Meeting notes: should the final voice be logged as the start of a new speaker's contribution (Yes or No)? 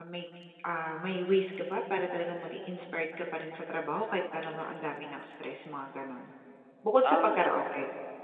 Yes